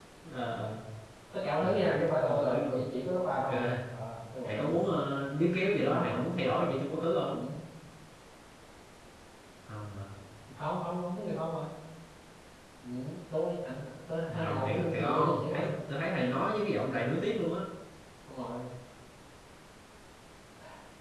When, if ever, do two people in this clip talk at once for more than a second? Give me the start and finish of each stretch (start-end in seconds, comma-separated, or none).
1.6-2.9, 14.3-15.7